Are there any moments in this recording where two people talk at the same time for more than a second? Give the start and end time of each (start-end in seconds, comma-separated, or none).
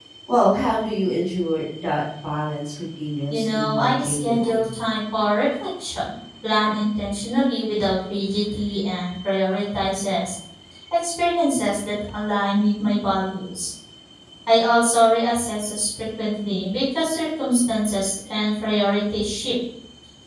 3.3-4.7